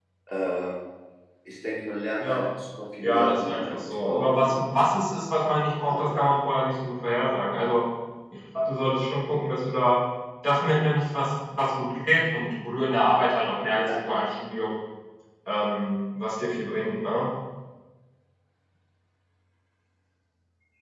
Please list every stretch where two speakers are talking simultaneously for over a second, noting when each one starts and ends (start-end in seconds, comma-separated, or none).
3.0-4.5